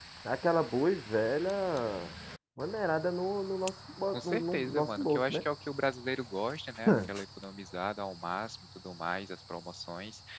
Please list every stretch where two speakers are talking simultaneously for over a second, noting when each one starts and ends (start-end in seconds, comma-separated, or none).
4.1-5.4